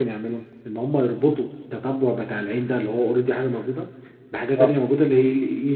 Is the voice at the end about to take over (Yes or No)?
No